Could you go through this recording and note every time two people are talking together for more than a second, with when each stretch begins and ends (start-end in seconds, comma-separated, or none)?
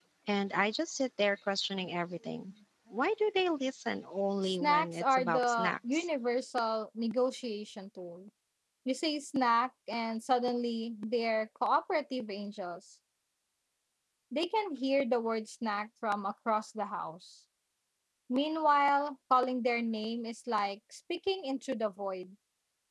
4.5-6.1